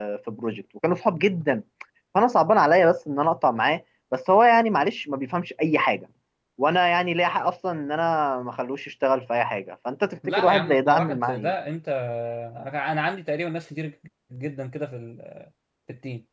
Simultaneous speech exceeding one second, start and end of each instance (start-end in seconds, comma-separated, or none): 10.3-11.5